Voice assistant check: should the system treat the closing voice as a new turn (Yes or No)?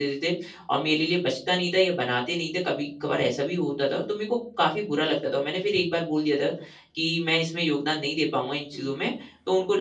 No